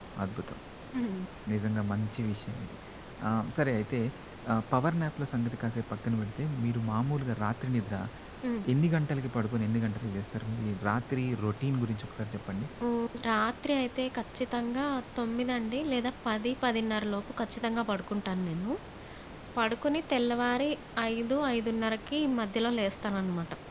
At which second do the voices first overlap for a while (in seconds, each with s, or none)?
none